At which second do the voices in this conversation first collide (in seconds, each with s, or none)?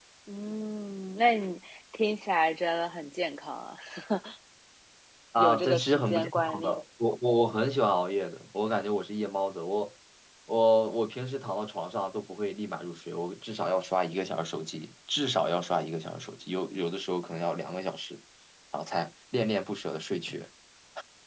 5.4 s